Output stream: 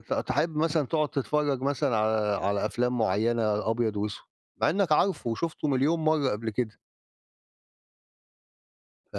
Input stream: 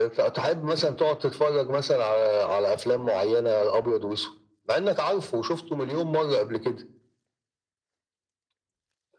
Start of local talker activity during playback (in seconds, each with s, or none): none